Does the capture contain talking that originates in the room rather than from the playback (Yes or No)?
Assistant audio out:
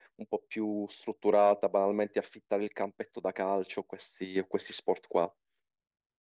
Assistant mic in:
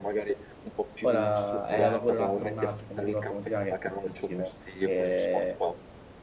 Yes